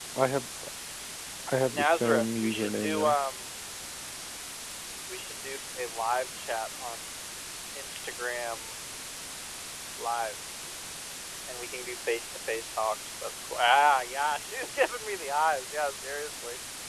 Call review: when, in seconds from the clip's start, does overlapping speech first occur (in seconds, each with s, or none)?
1.7 s